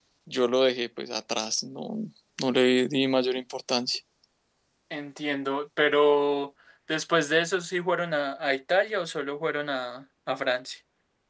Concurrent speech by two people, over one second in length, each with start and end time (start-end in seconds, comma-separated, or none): none